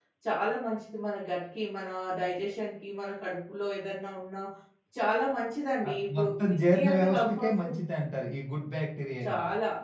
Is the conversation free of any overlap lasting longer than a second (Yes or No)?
No